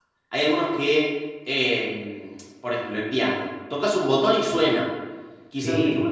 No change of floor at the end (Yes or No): Yes